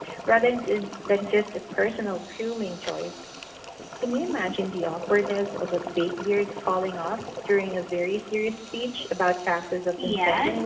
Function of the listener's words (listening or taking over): taking over